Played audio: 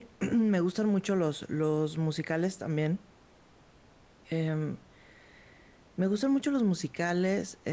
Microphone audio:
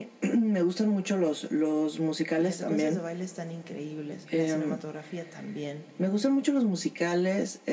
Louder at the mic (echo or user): echo